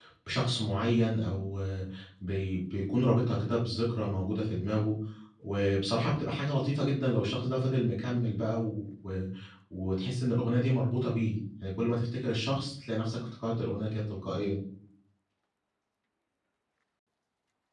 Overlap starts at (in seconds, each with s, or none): none